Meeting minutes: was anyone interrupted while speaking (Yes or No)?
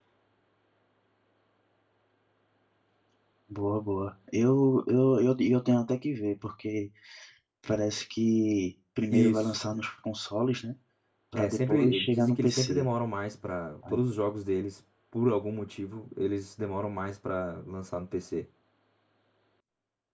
Yes